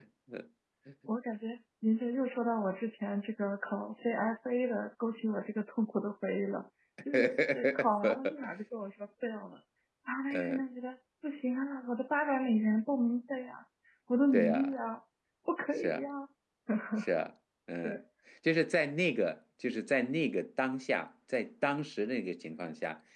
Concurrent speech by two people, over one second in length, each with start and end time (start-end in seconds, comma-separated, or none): 7.1-8.4